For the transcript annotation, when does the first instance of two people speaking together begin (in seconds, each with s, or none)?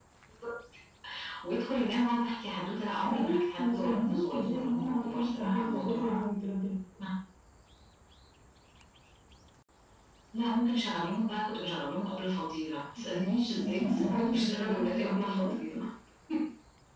3.0 s